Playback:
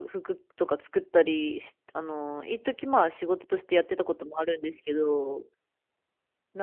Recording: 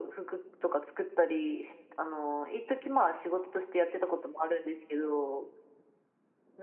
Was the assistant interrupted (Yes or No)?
No